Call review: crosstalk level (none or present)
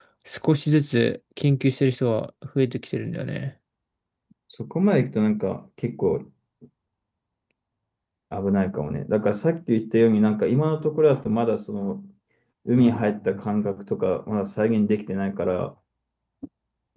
none